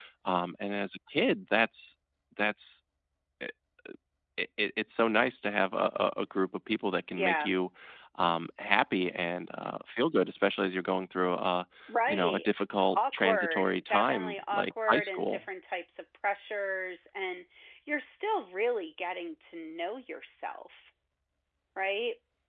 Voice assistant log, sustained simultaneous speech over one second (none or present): present